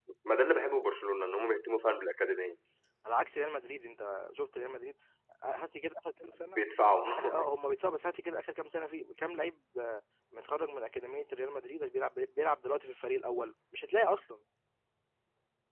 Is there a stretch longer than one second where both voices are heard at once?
No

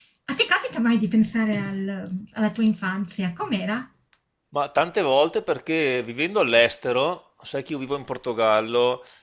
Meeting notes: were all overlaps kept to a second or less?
Yes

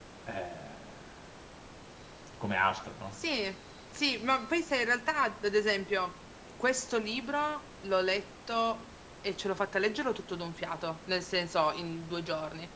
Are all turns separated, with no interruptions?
Yes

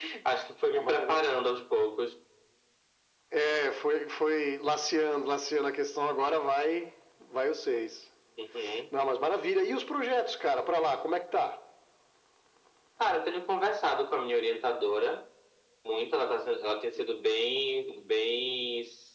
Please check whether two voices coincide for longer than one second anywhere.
No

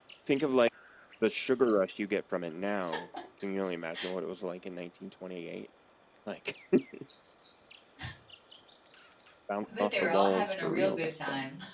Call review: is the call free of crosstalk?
No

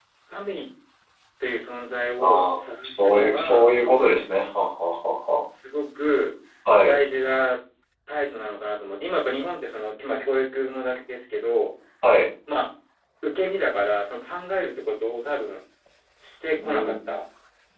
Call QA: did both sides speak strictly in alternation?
No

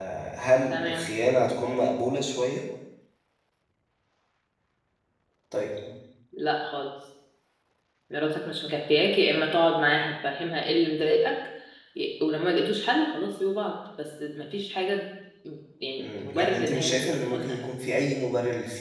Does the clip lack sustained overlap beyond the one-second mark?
No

